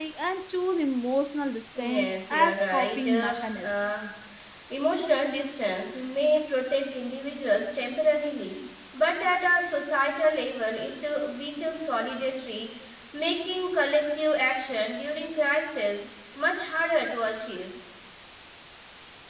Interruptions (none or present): present